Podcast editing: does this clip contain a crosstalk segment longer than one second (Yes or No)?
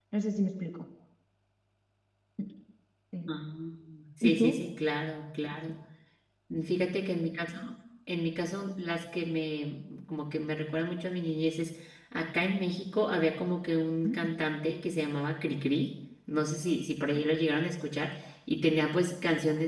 No